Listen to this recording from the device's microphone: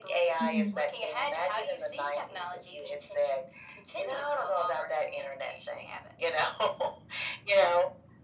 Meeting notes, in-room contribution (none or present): present